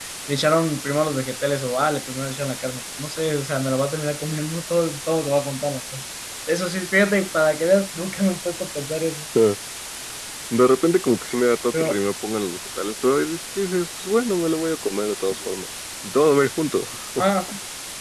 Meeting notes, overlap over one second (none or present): none